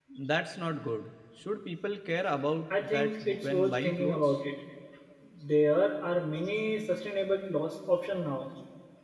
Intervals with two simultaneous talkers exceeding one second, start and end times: 2.8-4.4

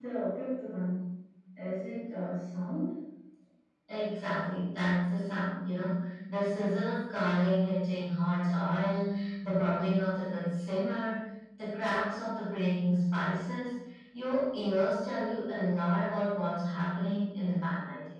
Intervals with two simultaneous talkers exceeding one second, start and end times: none

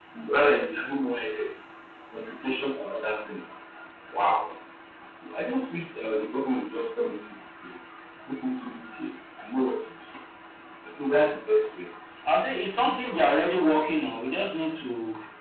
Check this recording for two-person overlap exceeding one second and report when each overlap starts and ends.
none

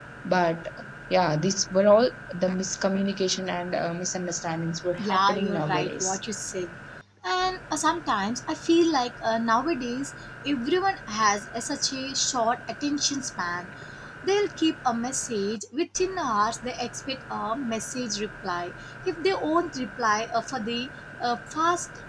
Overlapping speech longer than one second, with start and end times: 5.0-6.2

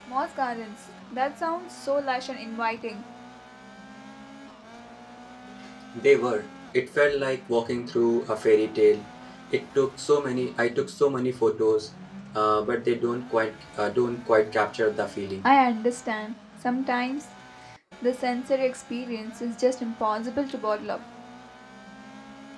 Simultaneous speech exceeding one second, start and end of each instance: none

